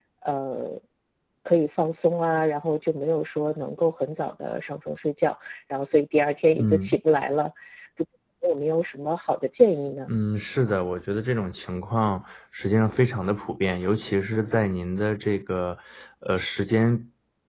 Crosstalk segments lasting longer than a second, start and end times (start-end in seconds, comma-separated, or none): none